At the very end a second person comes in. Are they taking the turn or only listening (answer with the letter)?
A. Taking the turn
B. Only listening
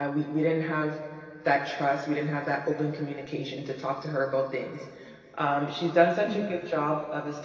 B